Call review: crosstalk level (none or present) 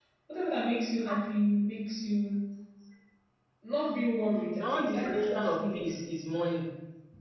present